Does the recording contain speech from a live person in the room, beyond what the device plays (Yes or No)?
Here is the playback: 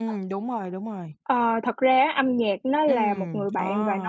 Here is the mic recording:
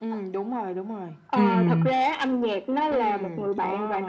Yes